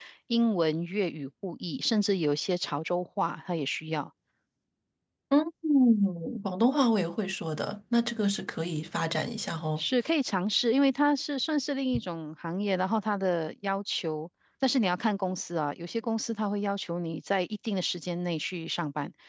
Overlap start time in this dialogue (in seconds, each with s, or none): none